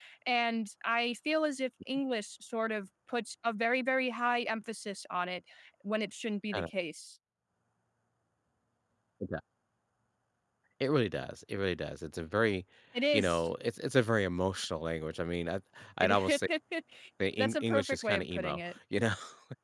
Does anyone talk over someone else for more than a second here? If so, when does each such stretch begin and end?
17.4-18.8

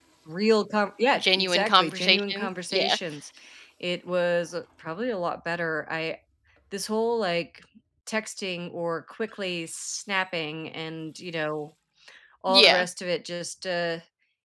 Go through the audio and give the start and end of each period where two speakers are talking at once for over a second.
1.2-3.0

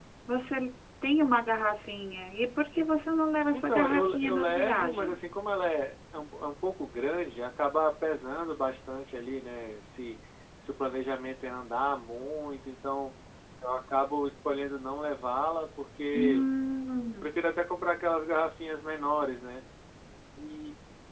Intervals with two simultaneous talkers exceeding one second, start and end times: 3.5-5.2

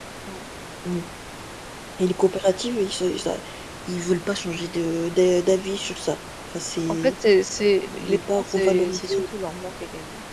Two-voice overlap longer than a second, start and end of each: 7.9-9.2

